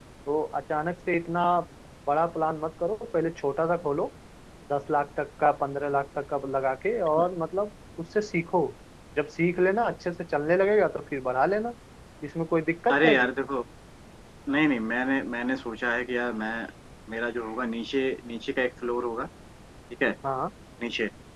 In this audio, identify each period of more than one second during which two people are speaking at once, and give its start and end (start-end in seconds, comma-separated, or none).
none